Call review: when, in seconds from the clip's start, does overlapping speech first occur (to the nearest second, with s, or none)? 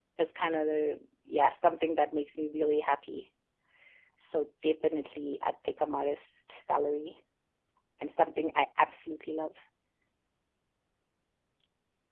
none